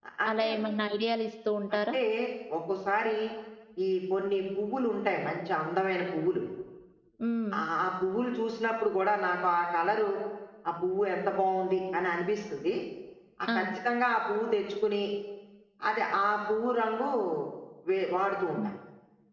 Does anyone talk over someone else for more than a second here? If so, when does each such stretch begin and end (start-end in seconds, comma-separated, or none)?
none